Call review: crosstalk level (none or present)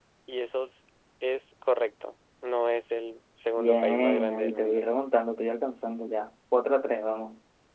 present